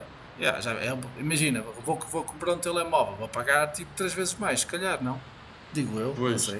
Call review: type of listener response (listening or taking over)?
taking over